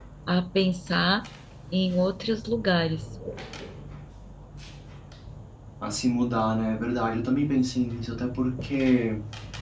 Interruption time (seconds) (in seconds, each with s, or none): none